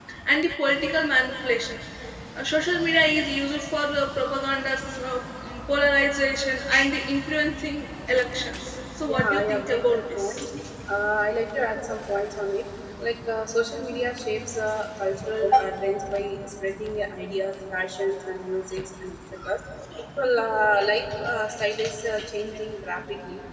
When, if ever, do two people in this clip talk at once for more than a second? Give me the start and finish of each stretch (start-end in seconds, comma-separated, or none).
9.0-10.3